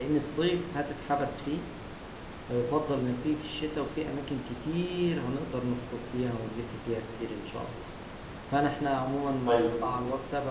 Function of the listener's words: listening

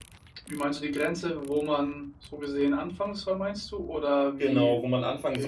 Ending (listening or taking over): taking over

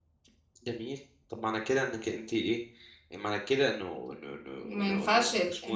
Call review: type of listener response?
taking over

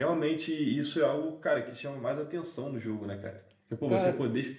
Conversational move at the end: listening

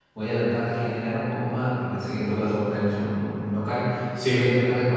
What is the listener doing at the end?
listening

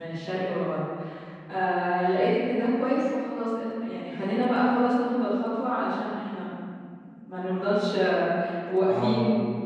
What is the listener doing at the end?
listening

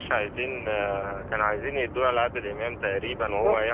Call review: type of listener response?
taking over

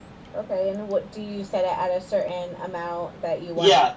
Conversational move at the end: taking over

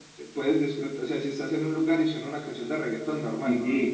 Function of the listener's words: taking over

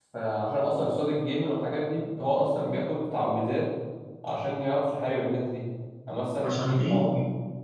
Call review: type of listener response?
listening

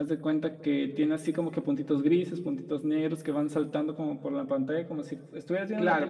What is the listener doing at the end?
taking over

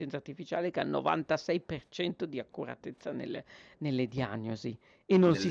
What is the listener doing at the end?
listening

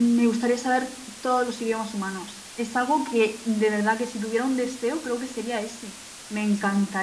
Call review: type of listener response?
listening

